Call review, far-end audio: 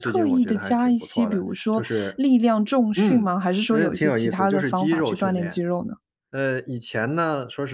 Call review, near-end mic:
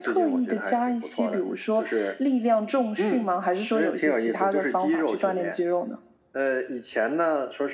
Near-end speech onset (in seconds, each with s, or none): none